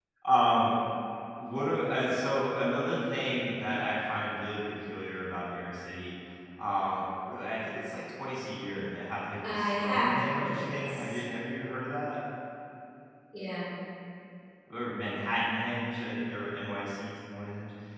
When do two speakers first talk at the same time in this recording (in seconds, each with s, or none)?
9.4 s